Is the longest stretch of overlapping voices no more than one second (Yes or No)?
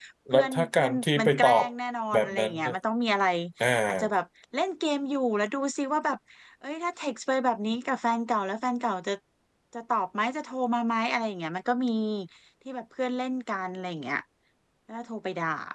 No